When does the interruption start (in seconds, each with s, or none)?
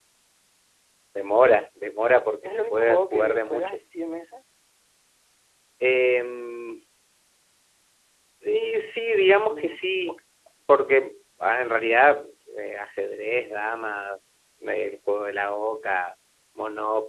2.5 s